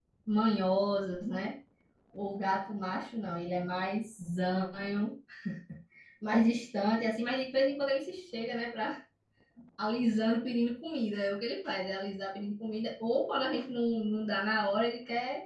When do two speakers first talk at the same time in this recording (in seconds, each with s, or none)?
none